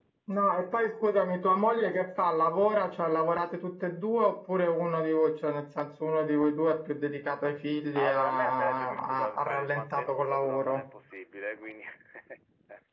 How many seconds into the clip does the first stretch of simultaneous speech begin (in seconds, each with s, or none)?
8.0 s